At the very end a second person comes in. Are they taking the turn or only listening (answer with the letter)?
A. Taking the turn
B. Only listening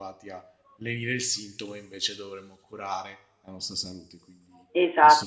A